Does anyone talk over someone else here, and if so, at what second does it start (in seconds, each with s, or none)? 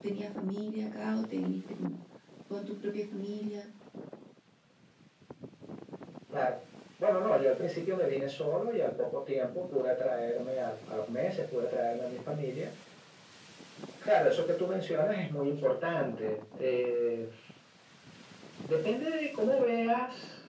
none